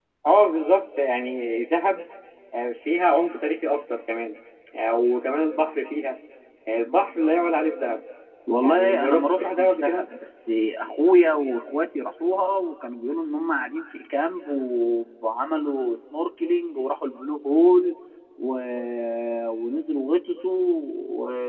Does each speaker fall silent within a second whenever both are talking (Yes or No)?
No